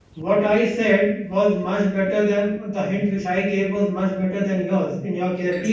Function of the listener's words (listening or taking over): listening